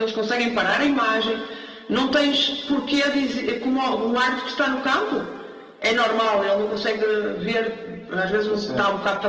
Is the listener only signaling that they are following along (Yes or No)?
Yes